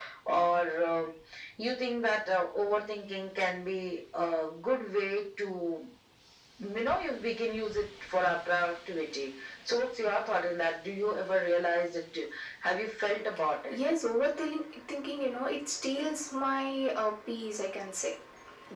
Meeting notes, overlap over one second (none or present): none